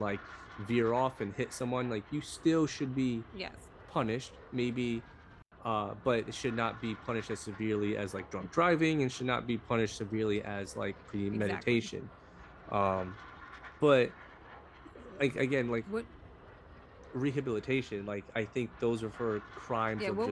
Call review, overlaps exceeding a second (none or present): none